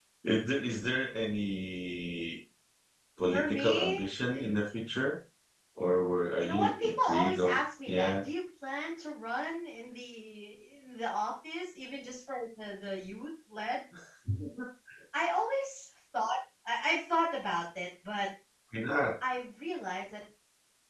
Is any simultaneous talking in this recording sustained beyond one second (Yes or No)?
Yes